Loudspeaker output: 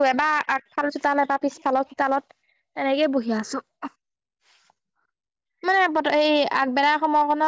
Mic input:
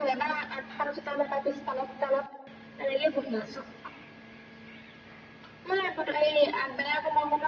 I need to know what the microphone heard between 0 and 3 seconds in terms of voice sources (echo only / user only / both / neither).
echo only